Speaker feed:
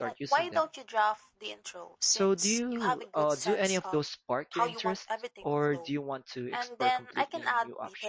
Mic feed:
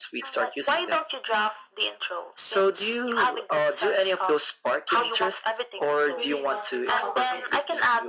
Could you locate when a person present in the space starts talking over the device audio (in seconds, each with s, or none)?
6.1 s